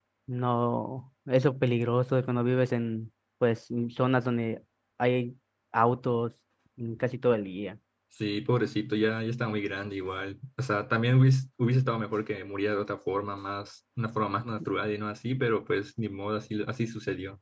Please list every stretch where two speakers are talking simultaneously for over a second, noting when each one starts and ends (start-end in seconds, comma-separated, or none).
none